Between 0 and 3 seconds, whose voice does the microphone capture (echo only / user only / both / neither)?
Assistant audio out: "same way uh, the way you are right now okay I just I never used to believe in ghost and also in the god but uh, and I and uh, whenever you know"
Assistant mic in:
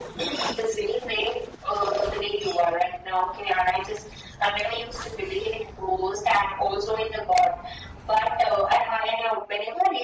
echo only